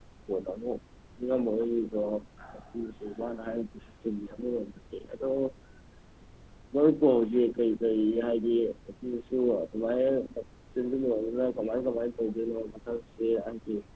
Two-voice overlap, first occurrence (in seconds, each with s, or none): none